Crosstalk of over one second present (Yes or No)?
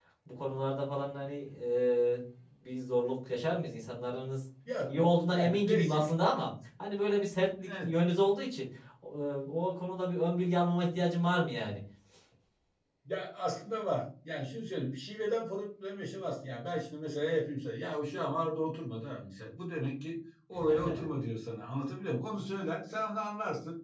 Yes